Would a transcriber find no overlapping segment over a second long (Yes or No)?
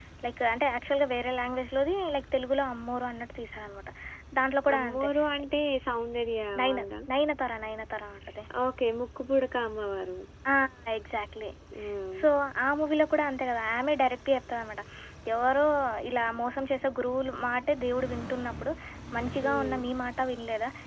Yes